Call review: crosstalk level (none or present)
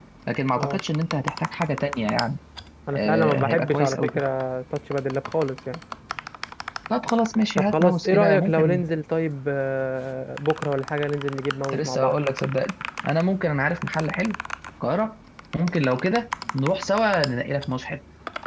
present